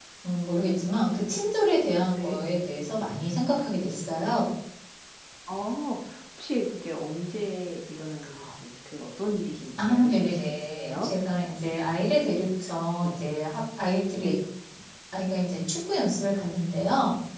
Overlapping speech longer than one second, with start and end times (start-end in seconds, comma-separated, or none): 9.8-11.1